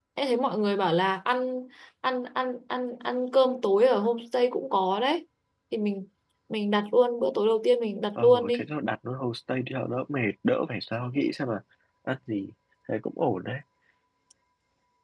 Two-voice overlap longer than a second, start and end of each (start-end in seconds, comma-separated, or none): none